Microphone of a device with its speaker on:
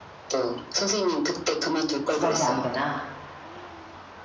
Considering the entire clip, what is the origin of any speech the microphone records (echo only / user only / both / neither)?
both